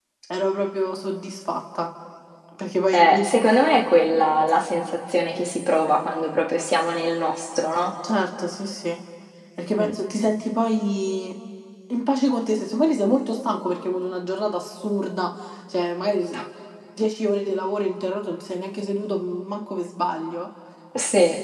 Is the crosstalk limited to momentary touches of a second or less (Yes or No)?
Yes